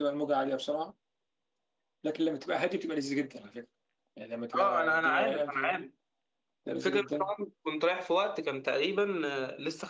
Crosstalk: present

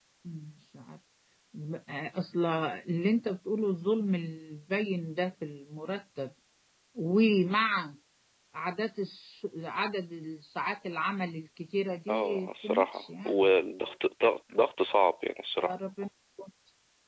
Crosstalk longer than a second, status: present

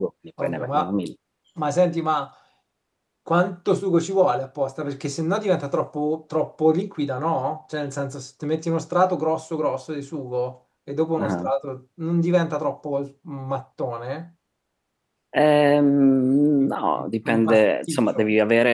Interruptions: present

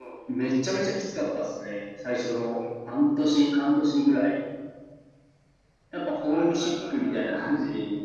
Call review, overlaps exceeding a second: present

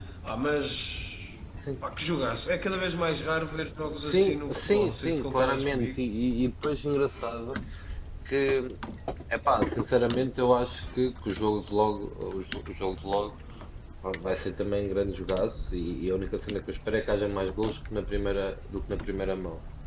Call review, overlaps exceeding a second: present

